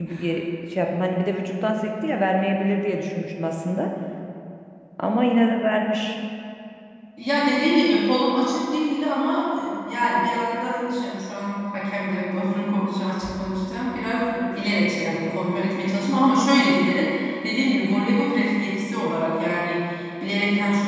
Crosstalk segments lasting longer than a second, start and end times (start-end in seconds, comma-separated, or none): none